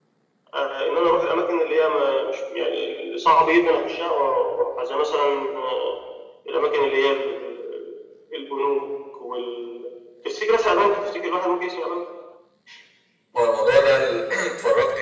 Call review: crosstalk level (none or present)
none